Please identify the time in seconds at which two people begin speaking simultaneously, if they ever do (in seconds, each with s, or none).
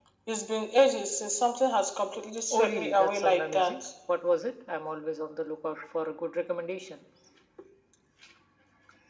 2.5 s